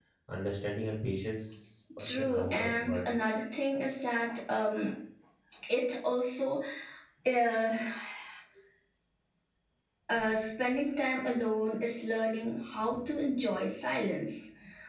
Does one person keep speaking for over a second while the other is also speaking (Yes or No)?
Yes